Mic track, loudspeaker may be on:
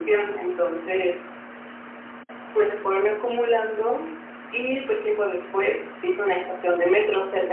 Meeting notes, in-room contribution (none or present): none